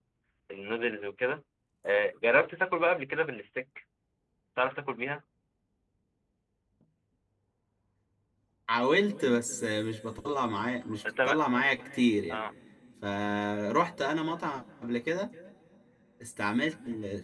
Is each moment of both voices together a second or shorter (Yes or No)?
Yes